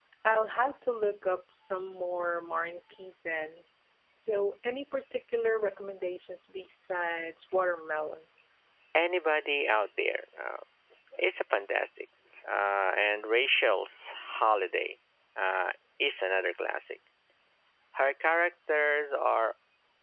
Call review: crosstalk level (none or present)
none